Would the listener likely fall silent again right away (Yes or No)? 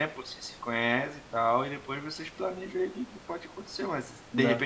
Yes